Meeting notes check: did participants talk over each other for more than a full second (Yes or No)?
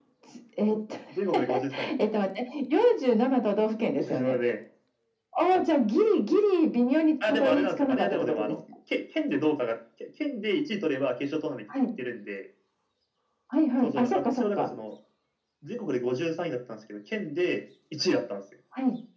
Yes